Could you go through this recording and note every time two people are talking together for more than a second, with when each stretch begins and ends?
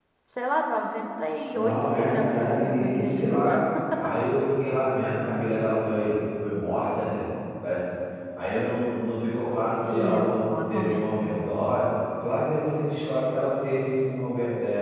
1.5-3.5, 9.9-11.2

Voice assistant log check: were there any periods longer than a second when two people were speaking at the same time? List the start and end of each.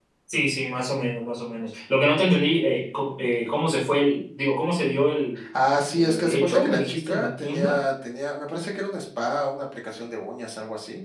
5.9-7.8

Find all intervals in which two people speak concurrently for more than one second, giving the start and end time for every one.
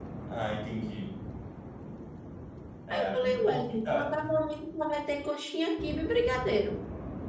2.9-4.2

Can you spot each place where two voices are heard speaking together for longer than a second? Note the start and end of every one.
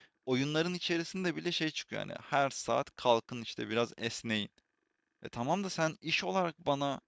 none

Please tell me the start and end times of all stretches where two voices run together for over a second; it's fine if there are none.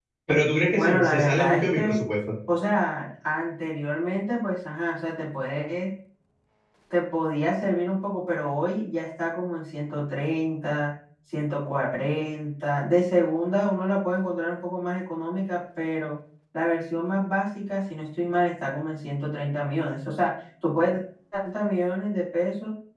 0.8-2.0

